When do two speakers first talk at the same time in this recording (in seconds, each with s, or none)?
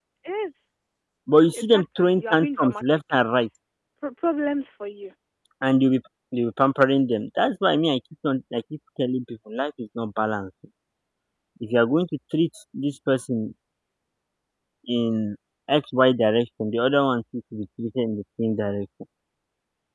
1.5 s